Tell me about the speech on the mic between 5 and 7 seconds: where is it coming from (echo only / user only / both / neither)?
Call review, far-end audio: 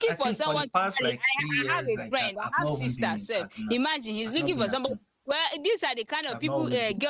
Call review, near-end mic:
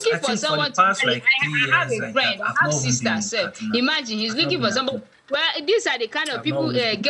echo only